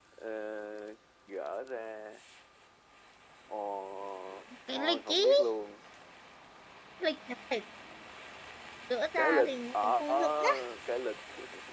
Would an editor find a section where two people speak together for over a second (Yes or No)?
Yes